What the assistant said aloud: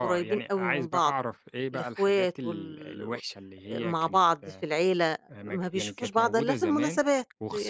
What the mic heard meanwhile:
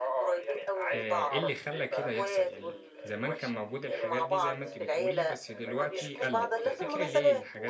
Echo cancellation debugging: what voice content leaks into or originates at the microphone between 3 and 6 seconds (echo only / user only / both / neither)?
both